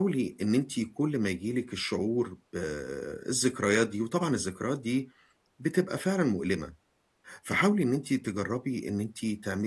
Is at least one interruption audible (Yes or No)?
No